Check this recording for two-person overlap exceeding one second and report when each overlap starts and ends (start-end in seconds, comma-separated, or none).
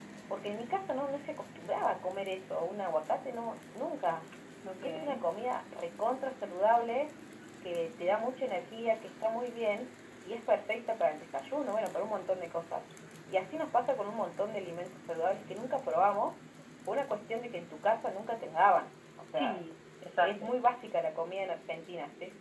none